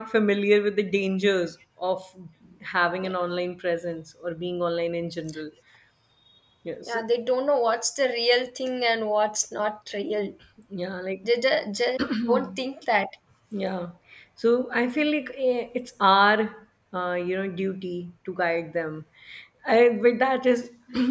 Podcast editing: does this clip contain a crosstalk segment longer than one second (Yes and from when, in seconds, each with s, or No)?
No